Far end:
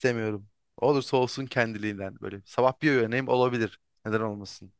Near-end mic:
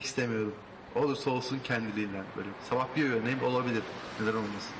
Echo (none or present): present